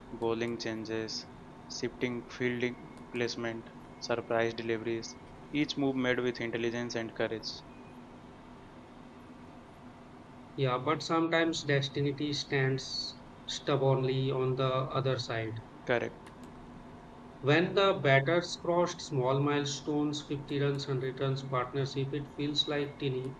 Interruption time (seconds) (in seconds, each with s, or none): none